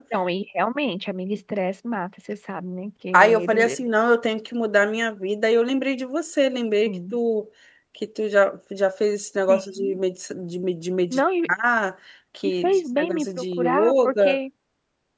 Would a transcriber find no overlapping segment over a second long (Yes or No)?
No